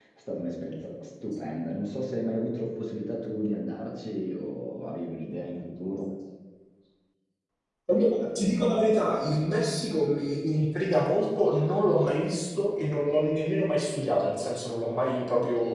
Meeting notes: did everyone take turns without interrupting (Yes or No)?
Yes